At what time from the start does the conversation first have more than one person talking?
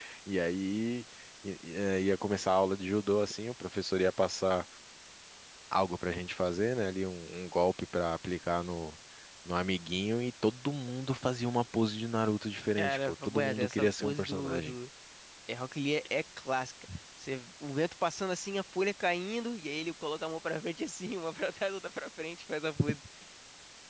12.8 s

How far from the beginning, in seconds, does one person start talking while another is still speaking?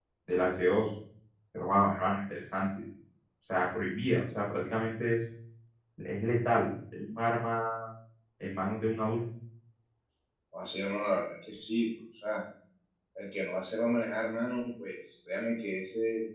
none

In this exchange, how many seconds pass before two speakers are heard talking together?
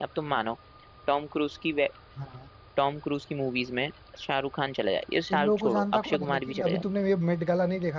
5.3 s

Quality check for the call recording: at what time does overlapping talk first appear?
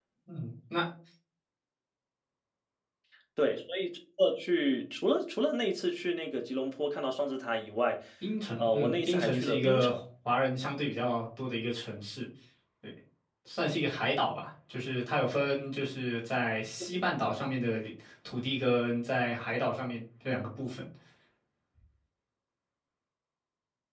8.6 s

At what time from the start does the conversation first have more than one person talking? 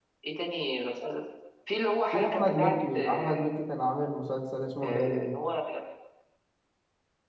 2.1 s

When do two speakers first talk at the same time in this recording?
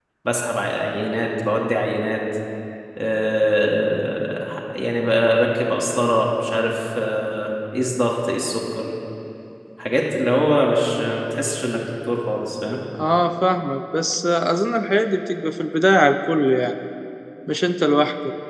none

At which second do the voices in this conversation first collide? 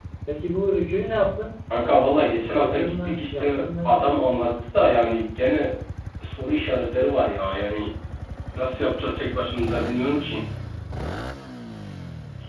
2.5 s

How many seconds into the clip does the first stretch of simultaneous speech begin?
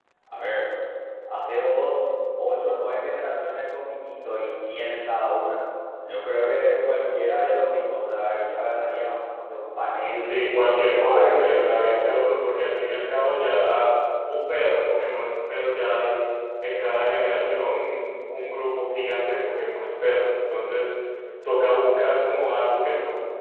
10.2 s

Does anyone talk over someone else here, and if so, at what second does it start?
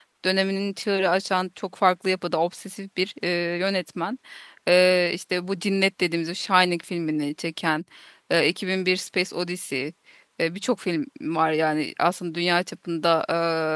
none

